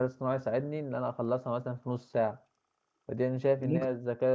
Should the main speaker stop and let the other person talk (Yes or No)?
No